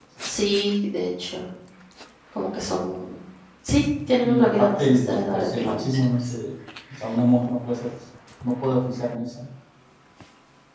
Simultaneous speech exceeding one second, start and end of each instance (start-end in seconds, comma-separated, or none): 4.2-6.3